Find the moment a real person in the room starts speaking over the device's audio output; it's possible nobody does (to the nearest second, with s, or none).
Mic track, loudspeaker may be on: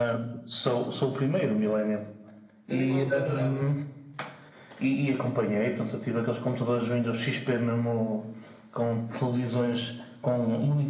3 s